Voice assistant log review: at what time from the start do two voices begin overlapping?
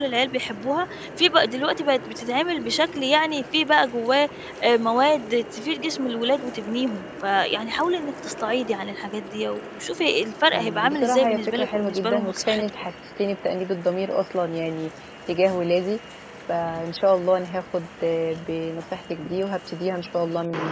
10.5 s

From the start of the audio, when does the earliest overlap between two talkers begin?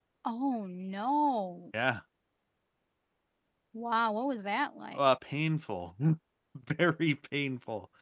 none

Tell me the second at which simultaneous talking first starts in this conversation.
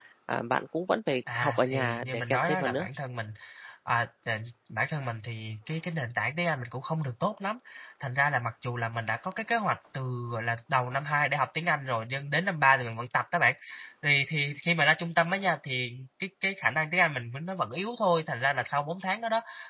1.3 s

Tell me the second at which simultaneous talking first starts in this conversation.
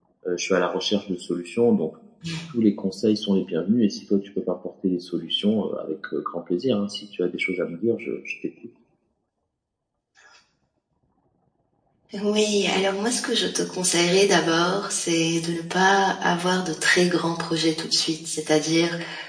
none

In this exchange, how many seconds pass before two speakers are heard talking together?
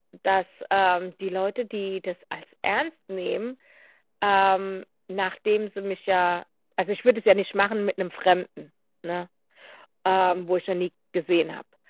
none

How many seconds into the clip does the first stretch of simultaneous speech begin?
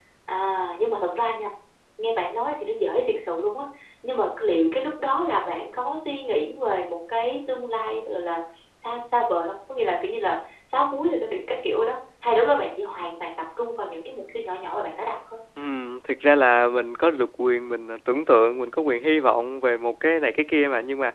none

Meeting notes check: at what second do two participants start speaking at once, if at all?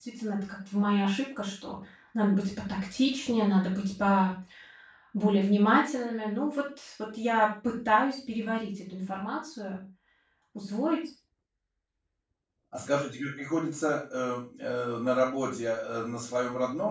none

